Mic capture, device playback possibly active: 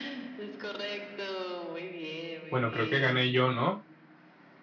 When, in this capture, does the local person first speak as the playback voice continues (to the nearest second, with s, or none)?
3 s